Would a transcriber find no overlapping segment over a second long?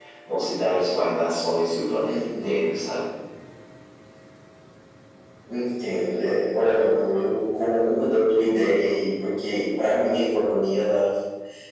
Yes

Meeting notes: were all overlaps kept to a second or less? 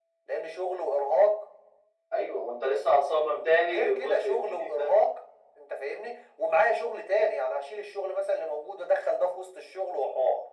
No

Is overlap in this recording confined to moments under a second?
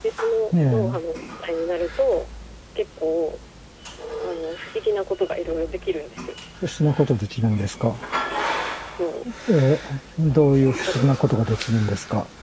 Yes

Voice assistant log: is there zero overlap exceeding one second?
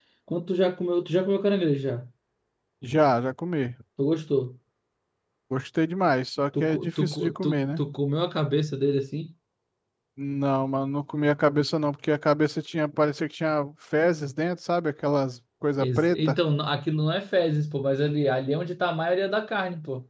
No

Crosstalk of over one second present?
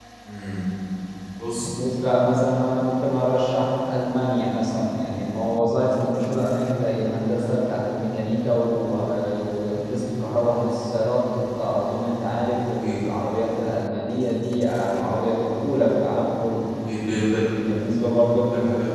No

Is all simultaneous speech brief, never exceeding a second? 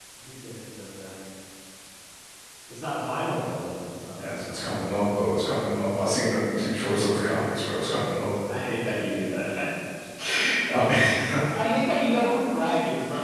Yes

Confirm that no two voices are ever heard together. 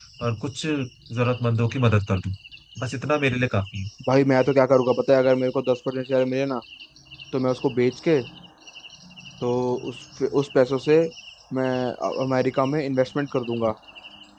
Yes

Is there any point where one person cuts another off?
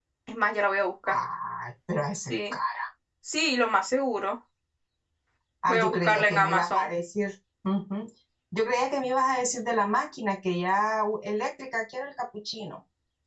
Yes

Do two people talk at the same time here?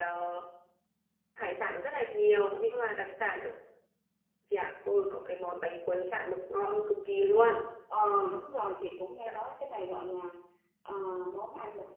No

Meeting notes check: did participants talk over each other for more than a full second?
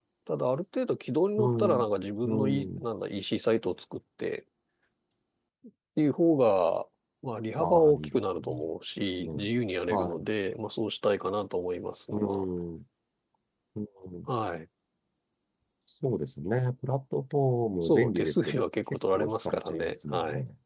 Yes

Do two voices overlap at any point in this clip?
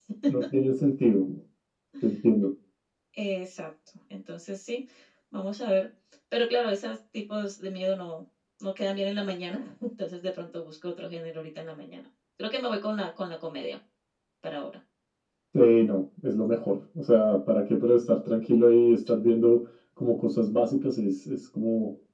No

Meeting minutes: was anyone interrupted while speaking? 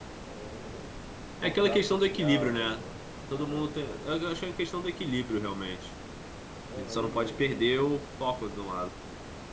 Yes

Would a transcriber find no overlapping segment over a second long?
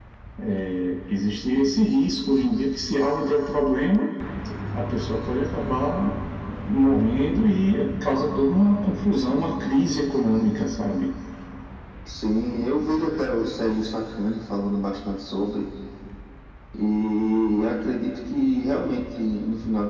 Yes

